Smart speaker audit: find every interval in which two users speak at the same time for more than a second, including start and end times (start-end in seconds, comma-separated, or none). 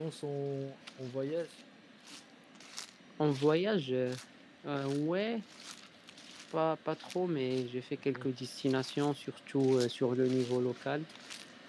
none